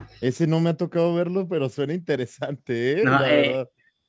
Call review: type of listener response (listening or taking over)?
taking over